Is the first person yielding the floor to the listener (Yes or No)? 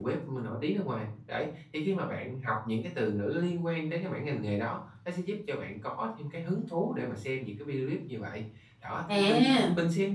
No